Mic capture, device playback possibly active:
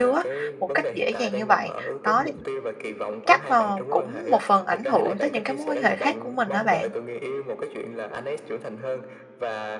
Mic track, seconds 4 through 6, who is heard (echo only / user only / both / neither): both